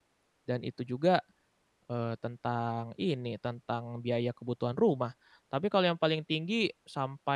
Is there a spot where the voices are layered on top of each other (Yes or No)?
No